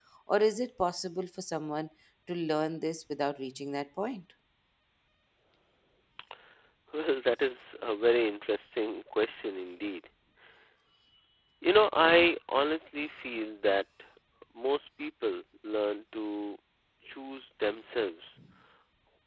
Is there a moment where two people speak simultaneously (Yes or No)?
No